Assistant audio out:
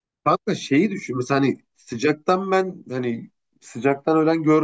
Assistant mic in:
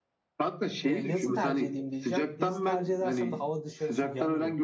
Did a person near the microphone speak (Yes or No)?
Yes